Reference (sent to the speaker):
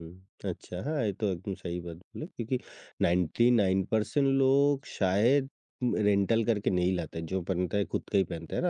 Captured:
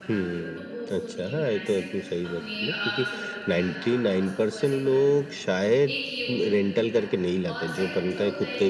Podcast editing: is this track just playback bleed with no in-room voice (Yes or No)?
No